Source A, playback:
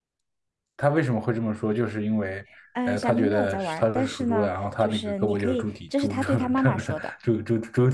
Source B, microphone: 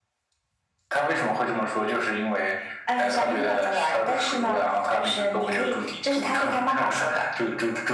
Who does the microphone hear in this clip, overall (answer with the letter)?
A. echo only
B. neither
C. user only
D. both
A